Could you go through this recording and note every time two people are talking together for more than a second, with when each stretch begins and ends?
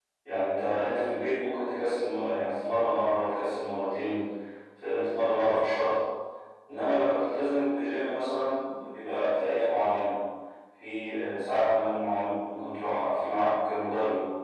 none

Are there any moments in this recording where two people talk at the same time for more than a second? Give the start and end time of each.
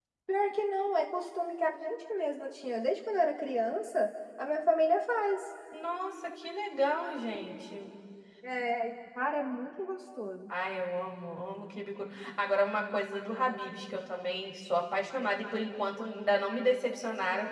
none

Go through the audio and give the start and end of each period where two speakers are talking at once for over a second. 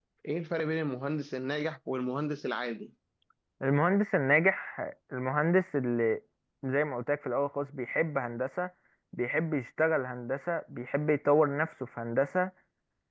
none

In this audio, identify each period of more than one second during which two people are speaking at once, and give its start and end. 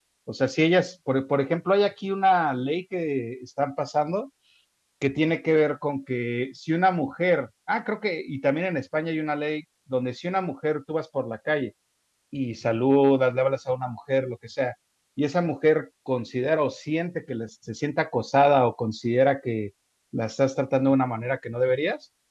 none

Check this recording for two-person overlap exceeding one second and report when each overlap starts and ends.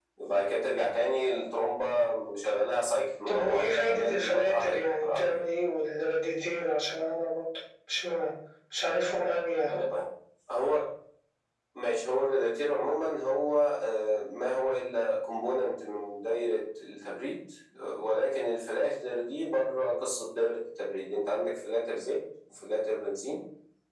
3.3-5.5

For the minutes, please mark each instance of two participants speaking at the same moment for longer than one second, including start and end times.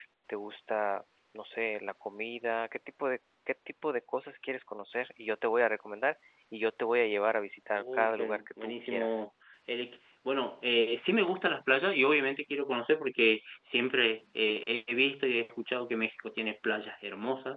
7.8-9.2

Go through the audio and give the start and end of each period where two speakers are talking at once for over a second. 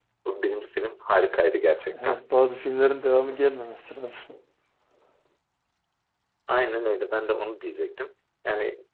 none

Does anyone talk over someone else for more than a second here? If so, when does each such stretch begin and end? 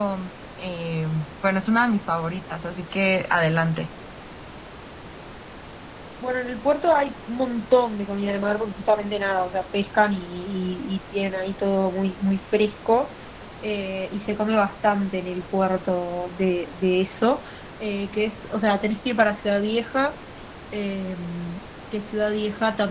none

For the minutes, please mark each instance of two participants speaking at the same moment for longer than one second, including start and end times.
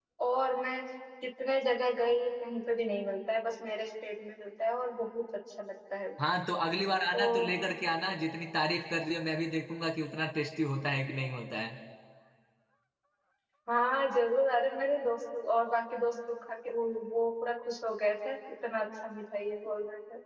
none

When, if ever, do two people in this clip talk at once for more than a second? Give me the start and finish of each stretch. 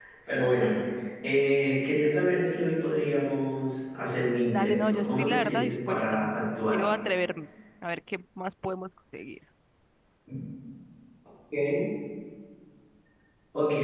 4.5-6.3

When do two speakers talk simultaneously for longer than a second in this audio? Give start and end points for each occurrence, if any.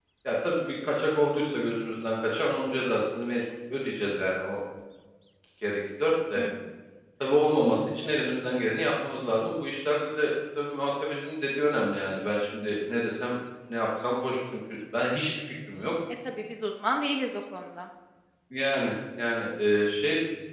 none

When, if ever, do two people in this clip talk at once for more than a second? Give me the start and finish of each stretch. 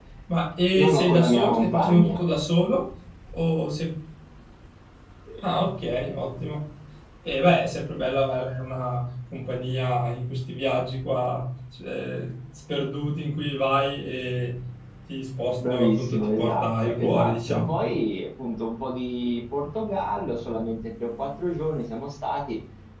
0.8-2.1, 15.6-17.8

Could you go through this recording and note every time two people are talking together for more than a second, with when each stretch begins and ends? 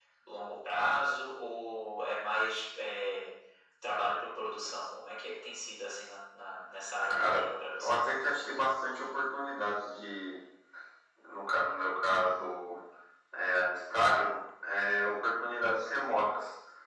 none

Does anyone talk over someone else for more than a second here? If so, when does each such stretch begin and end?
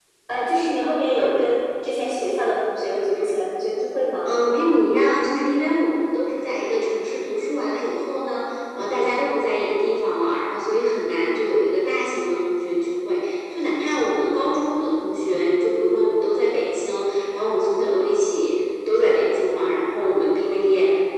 none

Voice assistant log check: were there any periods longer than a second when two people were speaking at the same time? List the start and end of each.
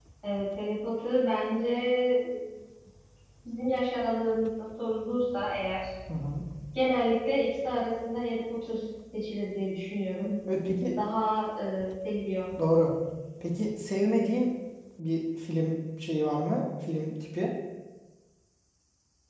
none

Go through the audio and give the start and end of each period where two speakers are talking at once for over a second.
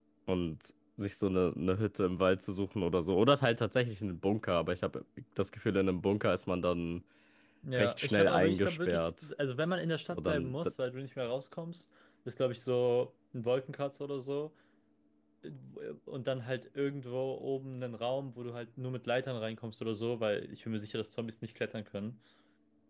7.8-9.1

